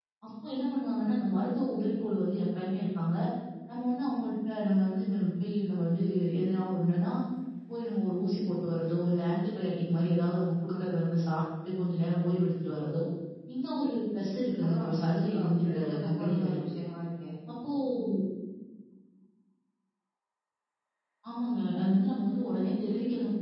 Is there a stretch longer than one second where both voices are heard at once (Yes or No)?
Yes